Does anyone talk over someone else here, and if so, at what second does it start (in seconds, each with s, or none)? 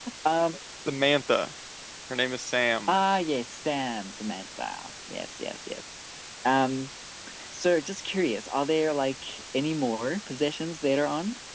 none